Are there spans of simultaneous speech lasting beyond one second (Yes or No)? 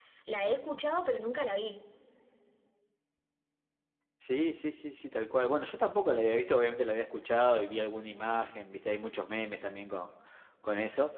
No